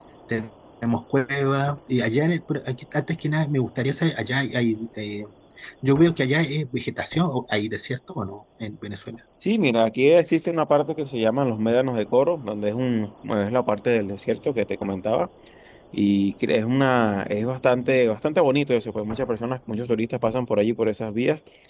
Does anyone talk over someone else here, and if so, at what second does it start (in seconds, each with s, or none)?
none